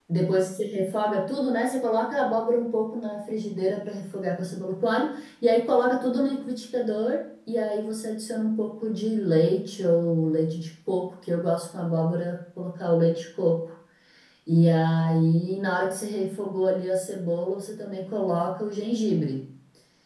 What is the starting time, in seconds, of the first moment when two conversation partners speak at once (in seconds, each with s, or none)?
none